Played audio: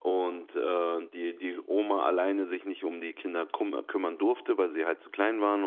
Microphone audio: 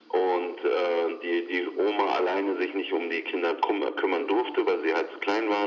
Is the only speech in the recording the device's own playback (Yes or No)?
Yes